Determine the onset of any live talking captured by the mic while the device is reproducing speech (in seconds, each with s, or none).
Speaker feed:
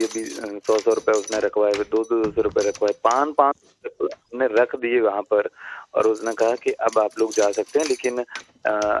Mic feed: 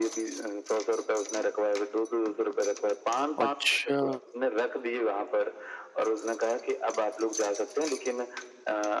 3.4 s